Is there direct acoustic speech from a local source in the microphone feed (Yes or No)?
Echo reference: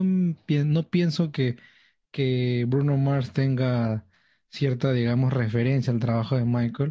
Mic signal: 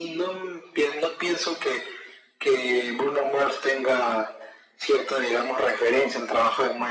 No